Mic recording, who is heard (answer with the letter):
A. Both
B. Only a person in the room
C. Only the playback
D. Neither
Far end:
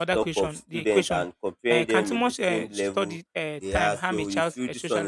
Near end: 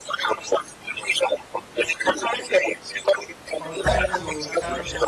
A